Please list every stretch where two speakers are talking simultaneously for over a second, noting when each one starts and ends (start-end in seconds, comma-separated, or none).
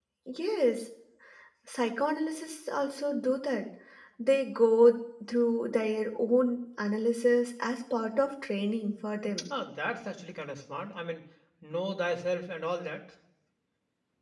none